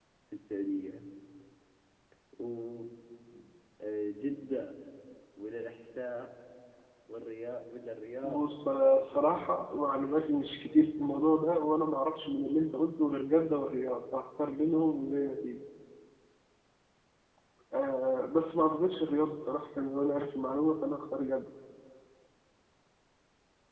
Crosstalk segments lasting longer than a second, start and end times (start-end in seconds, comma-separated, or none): 8.2-9.7